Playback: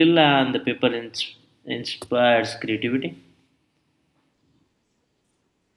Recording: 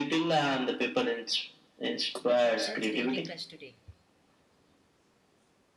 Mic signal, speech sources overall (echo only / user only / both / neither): both